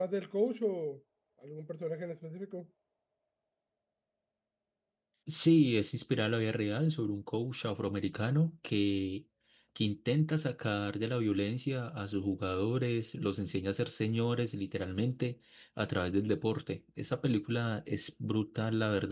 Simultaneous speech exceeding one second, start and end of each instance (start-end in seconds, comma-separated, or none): none